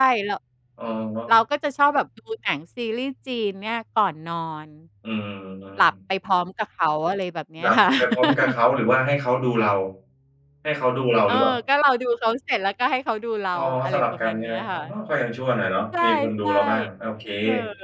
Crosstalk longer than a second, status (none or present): present